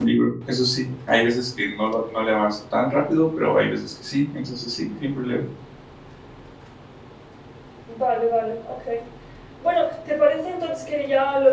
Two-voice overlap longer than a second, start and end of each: none

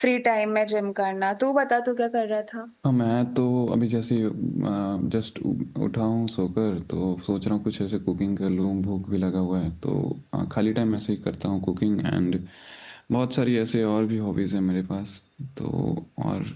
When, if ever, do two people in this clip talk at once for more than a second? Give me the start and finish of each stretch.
none

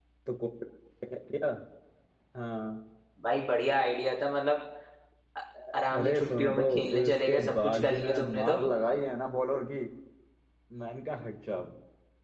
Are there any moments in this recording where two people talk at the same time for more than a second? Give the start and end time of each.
5.7-8.6

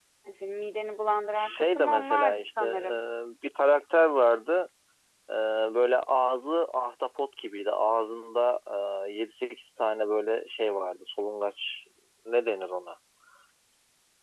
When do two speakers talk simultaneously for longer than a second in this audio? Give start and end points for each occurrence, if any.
1.4-3.0

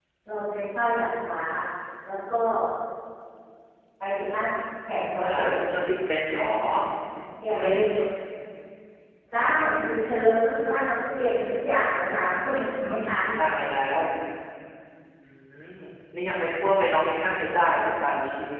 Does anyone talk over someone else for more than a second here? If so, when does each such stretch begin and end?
none

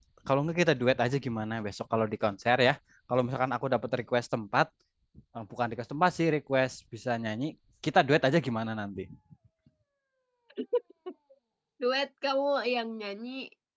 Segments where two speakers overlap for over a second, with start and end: none

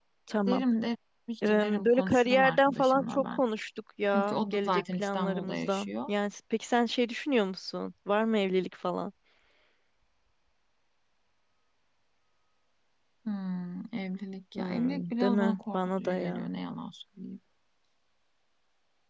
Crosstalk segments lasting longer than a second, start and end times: 1.5-3.4, 4.1-6.1, 14.6-16.5

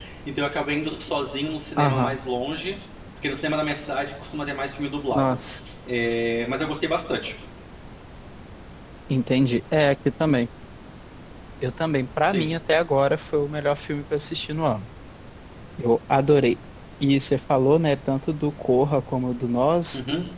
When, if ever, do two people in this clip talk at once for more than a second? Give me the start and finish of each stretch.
none

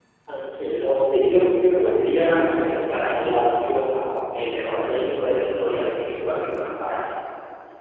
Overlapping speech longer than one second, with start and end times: 1.1-3.4

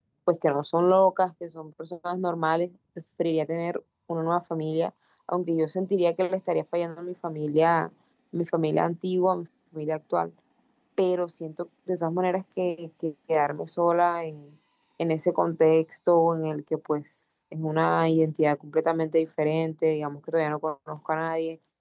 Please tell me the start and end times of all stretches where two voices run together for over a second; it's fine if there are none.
none

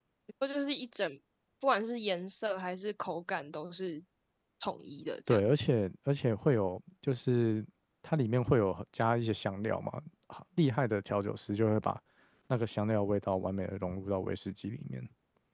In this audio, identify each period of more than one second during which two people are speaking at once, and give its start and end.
none

